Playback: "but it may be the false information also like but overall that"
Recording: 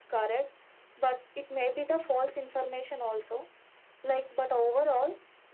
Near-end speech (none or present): none